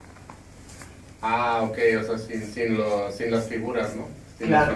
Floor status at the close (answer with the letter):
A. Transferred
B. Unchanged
A